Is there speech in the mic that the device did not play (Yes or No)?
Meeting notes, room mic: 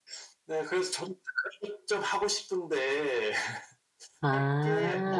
Yes